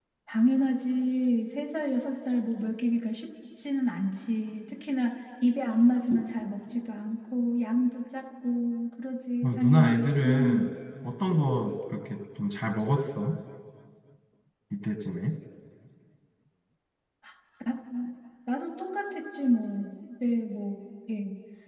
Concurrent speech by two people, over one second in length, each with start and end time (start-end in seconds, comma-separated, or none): 9.4-10.7